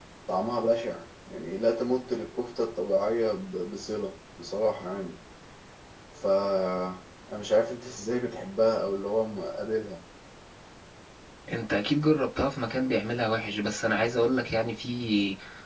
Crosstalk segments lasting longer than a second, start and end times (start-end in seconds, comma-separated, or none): none